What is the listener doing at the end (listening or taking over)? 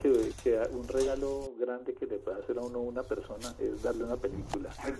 listening